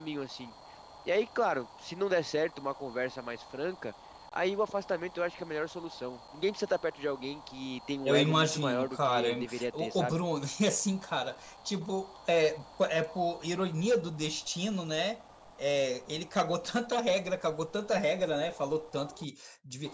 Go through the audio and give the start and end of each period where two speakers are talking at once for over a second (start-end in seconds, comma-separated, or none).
8.1-10.2